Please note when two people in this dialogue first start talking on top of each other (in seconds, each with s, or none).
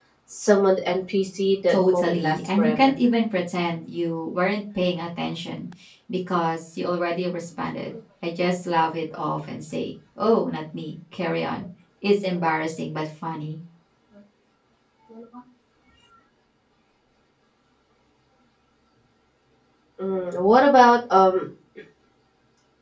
1.7 s